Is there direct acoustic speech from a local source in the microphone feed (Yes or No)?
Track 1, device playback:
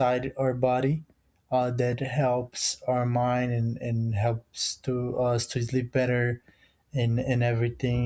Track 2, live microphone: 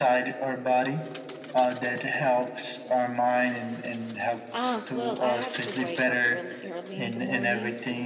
Yes